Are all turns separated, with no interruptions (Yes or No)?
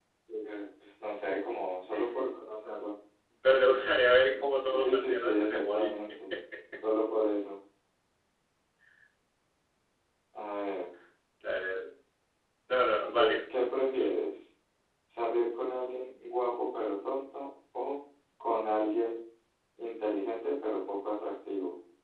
No